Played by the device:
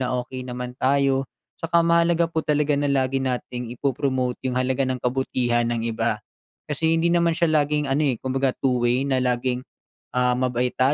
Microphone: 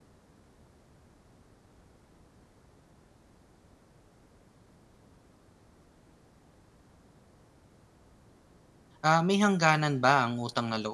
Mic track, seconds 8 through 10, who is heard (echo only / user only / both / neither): user only